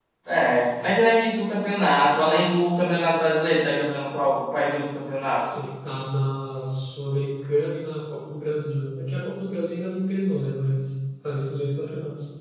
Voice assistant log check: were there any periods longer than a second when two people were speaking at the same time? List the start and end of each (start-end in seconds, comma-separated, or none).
none